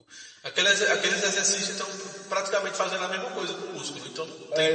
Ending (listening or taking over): taking over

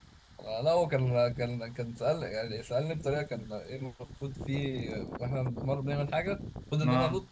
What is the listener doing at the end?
listening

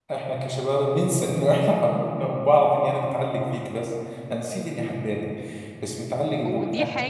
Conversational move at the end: taking over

